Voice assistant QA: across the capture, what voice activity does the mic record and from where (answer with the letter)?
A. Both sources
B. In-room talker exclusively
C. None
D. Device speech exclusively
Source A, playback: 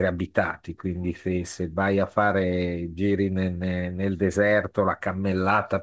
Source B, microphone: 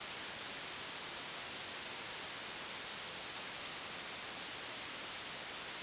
C